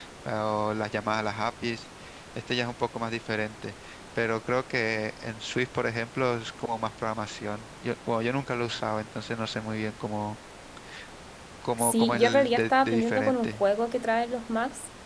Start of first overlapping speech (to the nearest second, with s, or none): 12 s